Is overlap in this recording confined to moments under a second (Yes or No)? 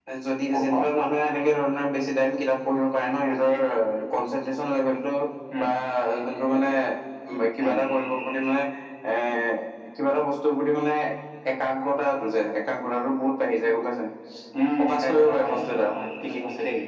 No